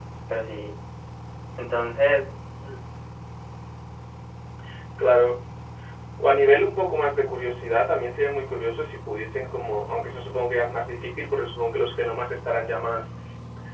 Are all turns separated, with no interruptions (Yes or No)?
Yes